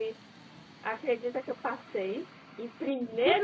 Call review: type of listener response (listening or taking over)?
taking over